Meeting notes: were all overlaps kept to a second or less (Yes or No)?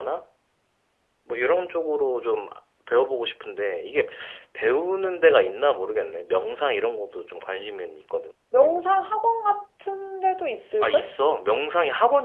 Yes